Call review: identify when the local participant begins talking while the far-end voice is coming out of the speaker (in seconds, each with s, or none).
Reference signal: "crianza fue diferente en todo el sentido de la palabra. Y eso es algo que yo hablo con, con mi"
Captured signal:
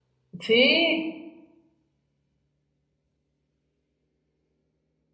0.4 s